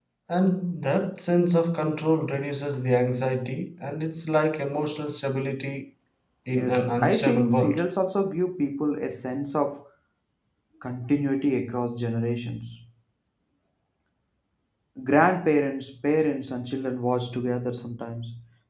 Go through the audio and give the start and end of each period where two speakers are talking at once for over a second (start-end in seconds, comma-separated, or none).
6.5-7.8